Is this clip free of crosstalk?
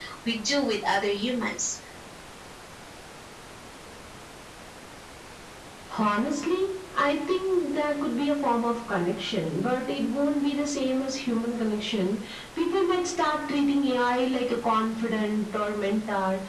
Yes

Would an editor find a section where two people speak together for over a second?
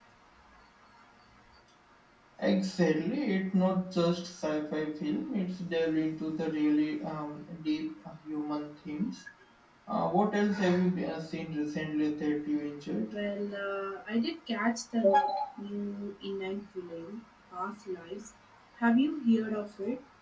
No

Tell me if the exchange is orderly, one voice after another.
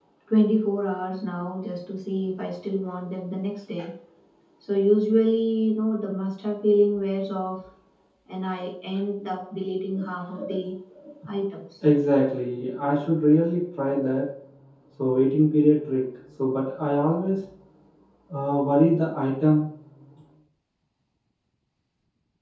Yes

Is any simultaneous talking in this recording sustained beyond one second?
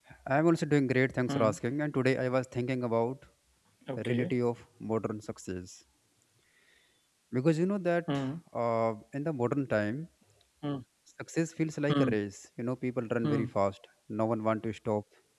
No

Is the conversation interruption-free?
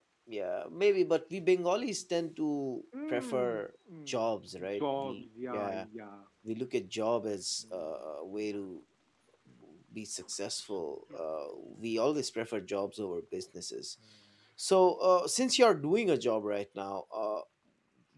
No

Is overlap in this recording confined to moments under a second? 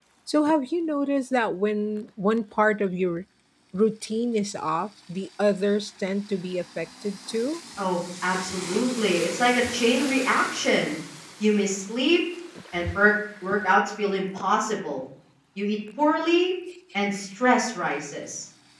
Yes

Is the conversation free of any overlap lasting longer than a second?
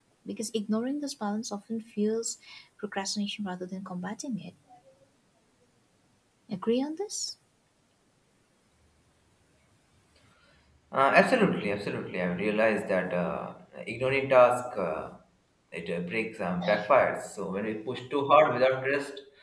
Yes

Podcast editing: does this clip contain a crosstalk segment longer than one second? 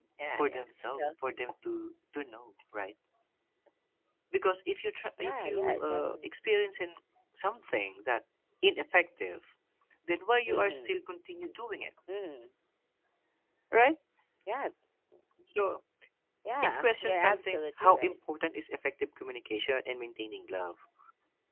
Yes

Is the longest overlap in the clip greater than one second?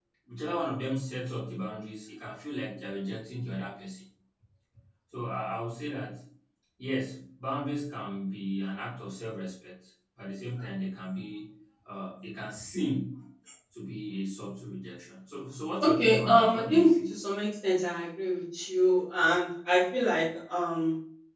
Yes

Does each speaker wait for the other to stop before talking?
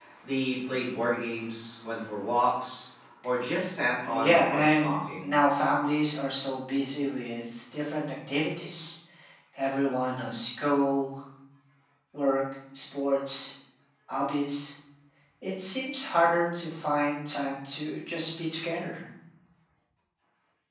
No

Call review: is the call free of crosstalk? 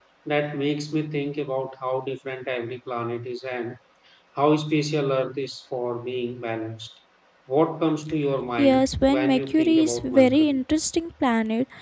No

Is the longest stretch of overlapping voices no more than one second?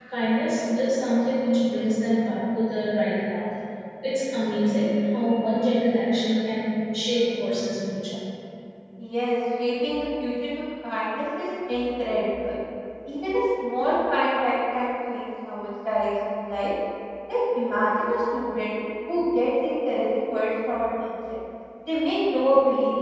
Yes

